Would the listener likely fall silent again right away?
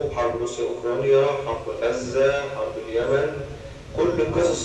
Yes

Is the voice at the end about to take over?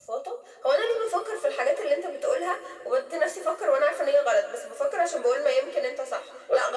No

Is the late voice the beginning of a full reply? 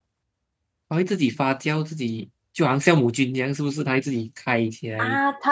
Yes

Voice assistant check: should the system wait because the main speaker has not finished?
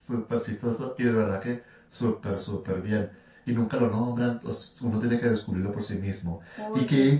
Yes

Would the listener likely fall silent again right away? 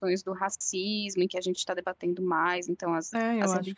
No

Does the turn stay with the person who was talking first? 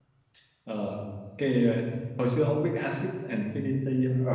No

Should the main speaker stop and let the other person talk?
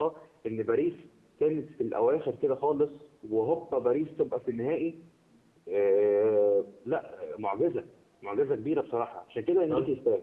Yes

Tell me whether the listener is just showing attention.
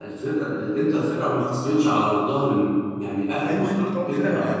No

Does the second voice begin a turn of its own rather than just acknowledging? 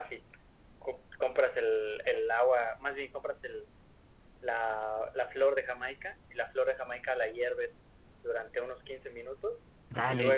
Yes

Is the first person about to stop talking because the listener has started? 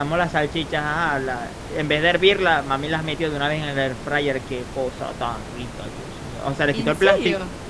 No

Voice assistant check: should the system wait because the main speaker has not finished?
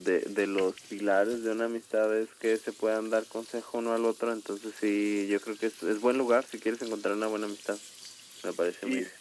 No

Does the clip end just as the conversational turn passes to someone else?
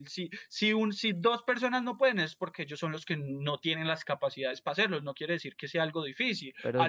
No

